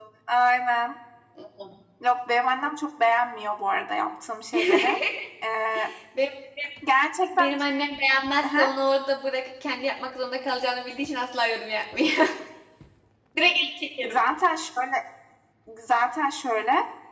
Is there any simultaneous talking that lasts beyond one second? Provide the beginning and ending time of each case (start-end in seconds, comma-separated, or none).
none